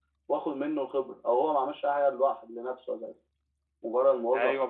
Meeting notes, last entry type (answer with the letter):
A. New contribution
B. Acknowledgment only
A